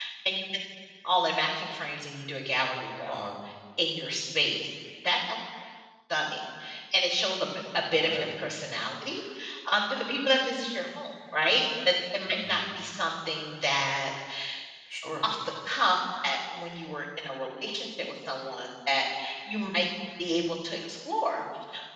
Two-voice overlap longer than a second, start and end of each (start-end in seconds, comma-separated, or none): none